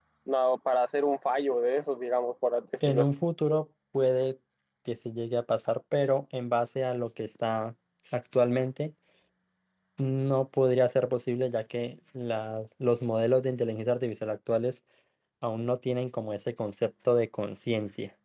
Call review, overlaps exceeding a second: none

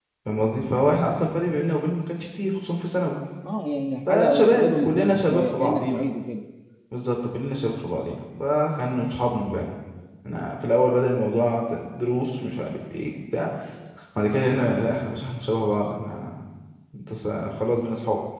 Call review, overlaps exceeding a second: present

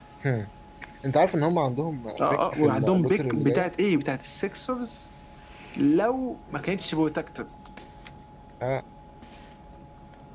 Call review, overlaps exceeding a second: present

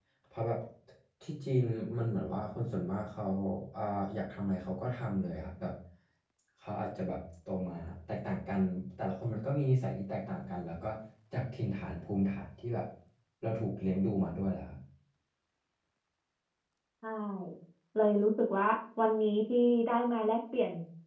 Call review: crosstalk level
none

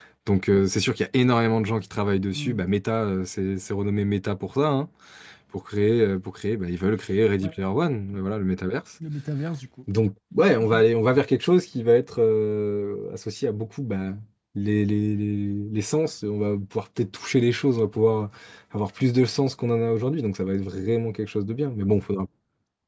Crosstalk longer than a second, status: none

